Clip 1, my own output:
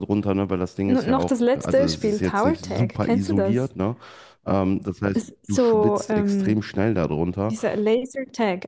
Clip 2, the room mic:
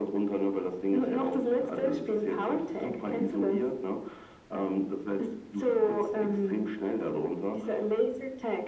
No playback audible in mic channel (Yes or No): No